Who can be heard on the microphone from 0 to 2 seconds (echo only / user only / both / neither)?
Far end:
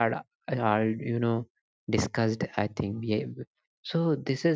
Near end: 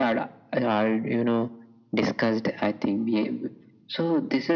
echo only